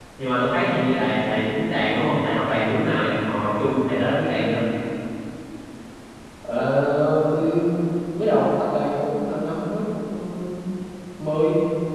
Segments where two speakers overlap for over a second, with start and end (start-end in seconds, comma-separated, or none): none